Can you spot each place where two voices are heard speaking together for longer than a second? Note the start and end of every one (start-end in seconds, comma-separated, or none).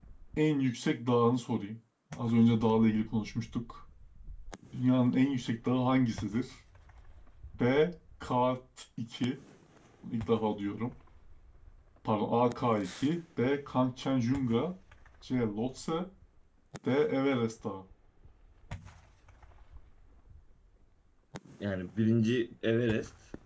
none